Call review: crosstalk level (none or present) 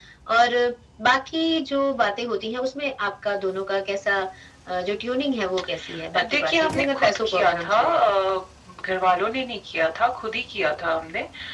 present